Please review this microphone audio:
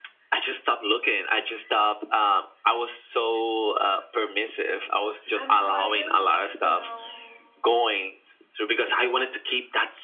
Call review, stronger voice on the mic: echo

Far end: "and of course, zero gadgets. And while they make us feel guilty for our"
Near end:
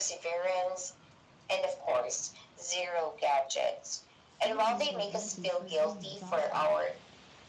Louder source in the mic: echo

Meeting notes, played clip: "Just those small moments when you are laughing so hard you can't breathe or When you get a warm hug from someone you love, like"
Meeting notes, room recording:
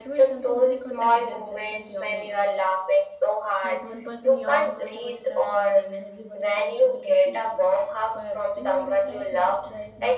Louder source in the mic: echo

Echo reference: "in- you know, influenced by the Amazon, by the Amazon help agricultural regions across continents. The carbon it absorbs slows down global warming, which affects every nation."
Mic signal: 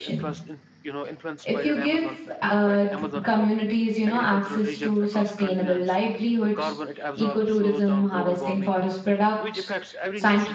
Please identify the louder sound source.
user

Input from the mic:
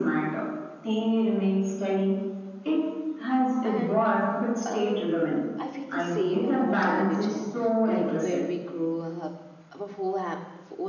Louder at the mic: echo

